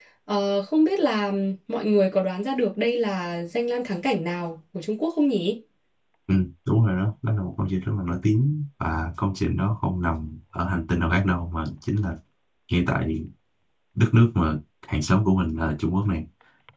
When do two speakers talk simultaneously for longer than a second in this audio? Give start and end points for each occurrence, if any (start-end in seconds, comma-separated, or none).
none